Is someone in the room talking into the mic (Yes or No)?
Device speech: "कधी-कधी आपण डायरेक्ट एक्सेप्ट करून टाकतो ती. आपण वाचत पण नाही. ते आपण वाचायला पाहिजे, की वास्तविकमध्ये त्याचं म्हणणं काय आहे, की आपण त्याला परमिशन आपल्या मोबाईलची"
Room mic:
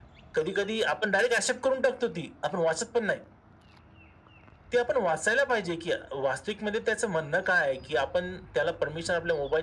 No